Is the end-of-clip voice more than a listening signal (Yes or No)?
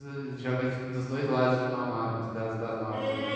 Yes